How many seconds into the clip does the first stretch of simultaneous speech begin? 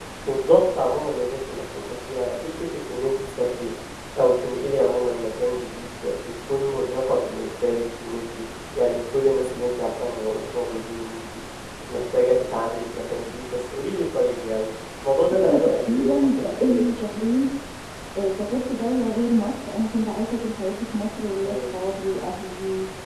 15 s

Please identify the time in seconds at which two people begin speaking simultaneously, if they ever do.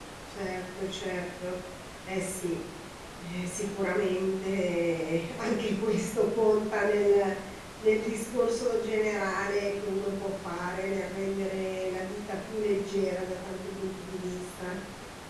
none

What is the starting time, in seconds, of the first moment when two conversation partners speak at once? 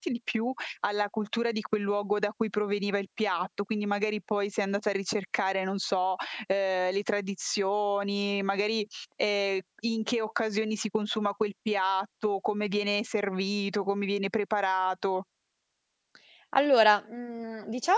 none

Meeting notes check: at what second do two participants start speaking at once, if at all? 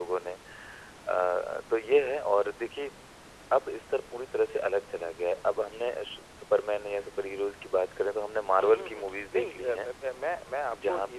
9 s

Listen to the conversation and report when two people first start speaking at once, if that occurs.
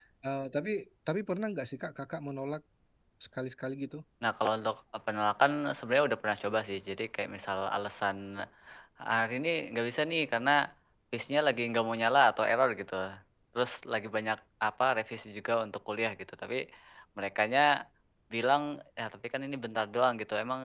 none

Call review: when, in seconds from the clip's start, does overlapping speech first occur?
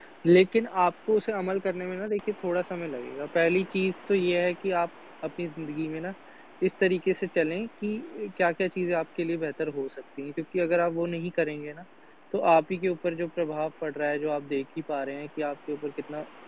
none

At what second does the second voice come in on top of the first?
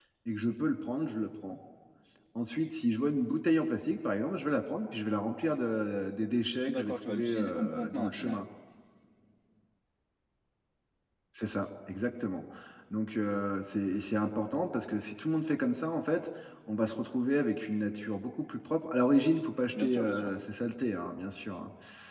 7 s

